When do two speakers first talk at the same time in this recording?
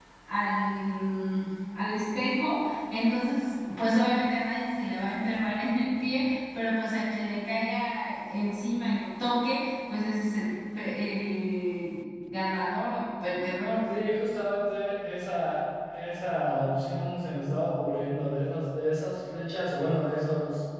none

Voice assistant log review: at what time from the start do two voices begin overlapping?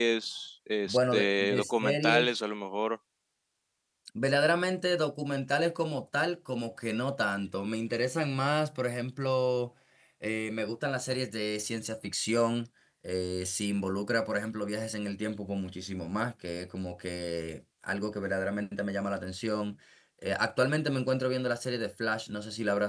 0.8 s

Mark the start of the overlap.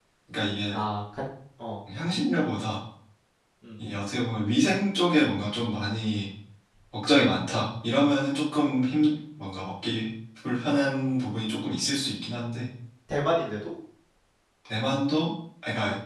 none

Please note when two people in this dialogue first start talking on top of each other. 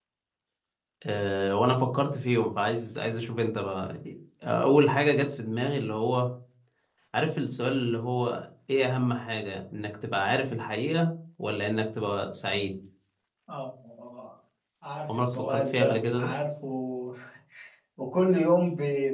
15.1 s

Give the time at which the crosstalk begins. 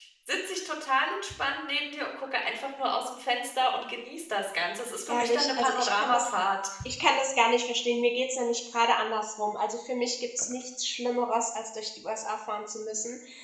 5.1 s

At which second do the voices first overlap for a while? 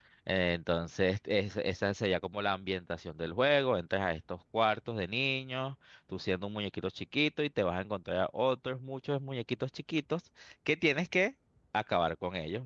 none

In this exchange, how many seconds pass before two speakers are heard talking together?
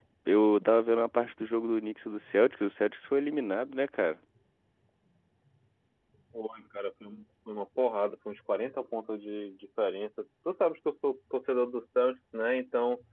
none

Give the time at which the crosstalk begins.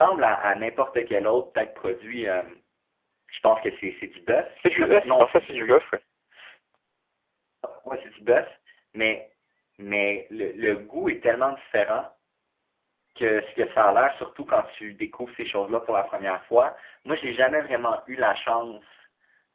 4.5 s

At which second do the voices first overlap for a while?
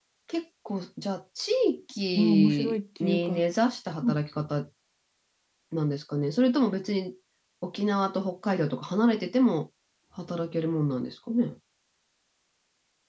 2.1 s

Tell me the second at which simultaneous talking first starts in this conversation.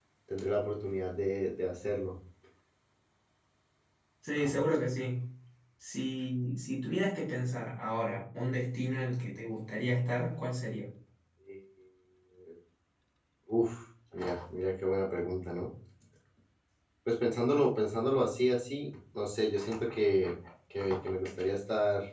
none

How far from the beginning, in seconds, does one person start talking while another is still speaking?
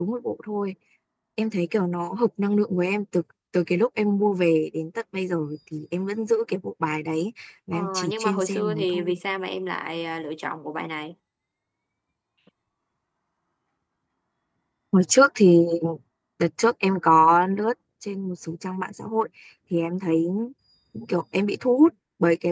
7.7 s

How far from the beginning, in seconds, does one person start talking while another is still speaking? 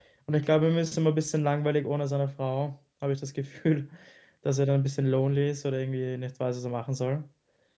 none

